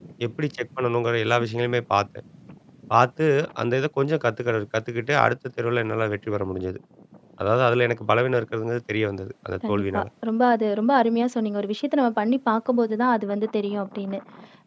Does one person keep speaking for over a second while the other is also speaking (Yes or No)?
No